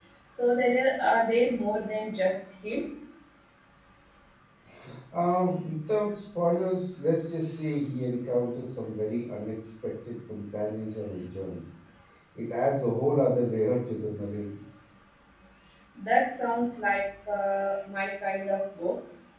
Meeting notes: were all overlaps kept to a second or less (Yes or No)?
Yes